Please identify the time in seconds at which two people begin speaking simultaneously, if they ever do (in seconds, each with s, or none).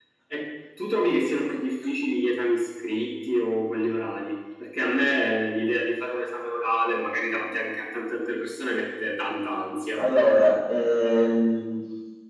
none